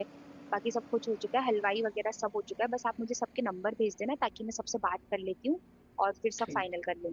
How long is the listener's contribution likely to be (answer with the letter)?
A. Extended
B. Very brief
A